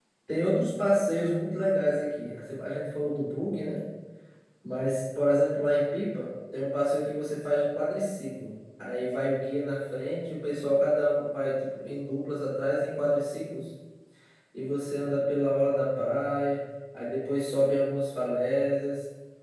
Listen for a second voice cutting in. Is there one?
No

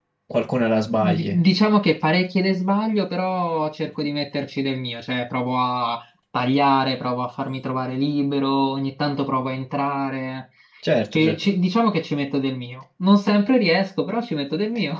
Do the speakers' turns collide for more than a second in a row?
No

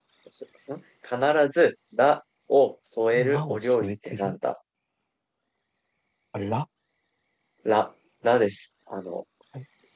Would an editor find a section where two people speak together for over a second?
Yes, from 3.1 s

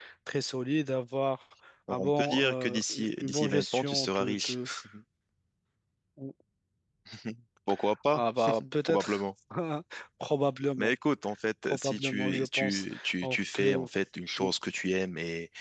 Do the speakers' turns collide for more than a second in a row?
Yes, from 1.9 s

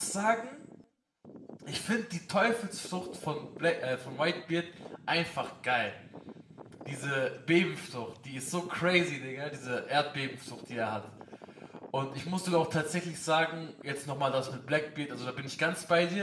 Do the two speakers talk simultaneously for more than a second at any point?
No

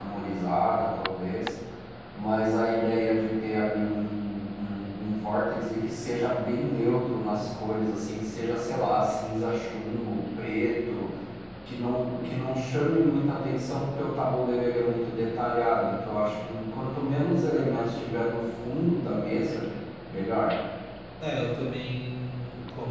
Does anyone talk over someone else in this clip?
No

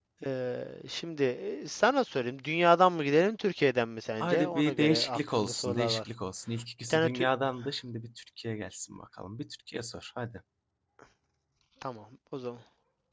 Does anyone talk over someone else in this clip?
Yes, from 4.2 s

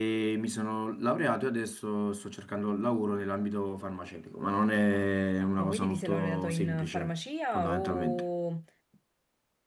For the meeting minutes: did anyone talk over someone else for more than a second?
Yes, from 5.6 s

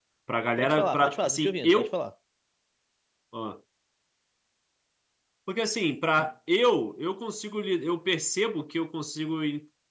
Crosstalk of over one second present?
Yes, from 0.6 s

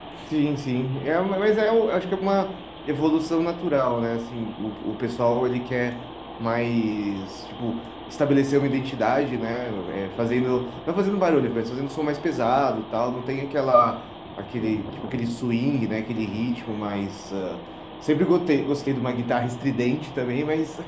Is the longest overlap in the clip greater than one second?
No

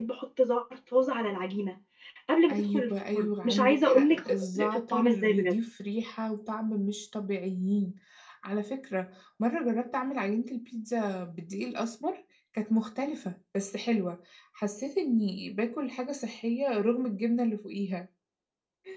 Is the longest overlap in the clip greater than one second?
Yes, from 2.5 s

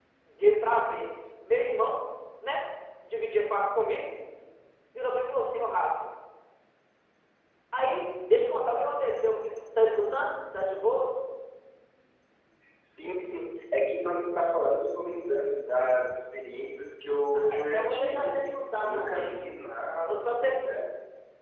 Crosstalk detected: Yes, from 17.3 s

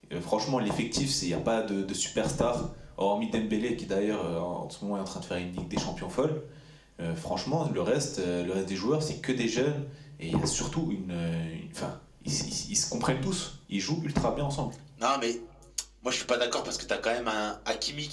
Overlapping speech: No

